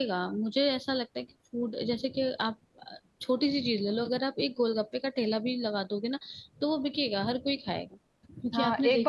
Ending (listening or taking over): taking over